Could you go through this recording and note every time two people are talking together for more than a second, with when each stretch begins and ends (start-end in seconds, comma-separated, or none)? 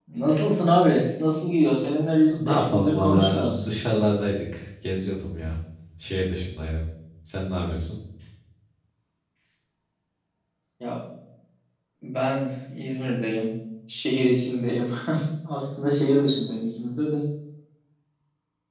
2.3-3.6